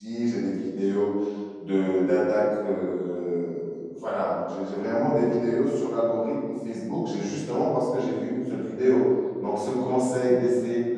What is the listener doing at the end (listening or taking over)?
listening